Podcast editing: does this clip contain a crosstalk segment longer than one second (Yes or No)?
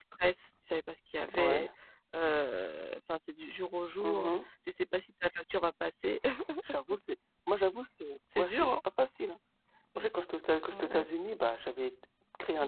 No